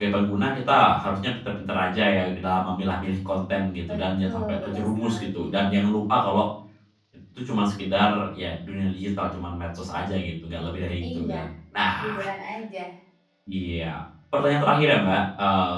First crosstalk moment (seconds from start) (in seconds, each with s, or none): 3.9 s